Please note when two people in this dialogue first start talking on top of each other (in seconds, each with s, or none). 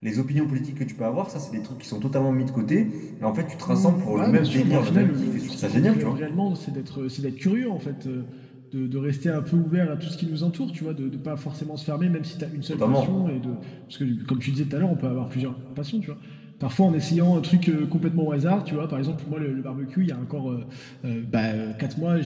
3.7 s